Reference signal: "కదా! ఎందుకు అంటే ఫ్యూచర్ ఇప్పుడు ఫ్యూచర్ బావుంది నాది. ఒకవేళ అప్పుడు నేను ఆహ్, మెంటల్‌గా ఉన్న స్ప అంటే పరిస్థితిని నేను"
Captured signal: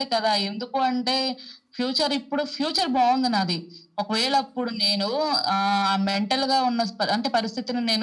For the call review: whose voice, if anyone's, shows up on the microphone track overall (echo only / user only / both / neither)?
echo only